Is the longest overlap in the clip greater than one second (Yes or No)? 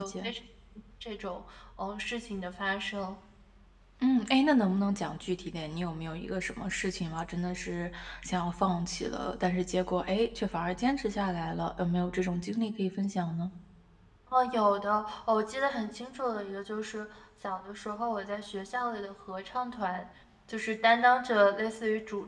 No